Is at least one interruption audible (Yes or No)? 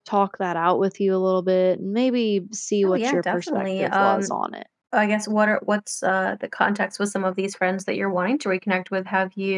Yes